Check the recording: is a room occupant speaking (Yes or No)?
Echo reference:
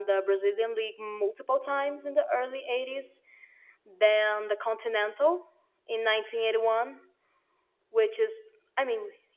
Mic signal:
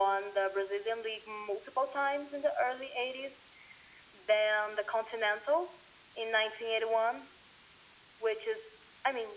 No